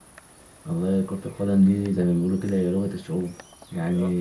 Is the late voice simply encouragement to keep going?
Yes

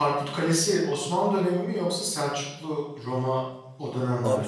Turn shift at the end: Yes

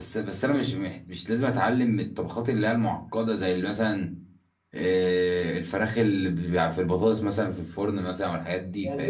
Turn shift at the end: Yes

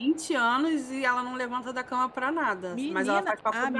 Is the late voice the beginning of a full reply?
Yes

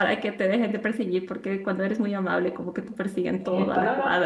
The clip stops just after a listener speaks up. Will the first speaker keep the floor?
No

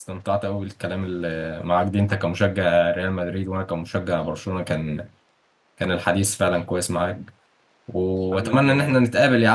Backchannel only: Yes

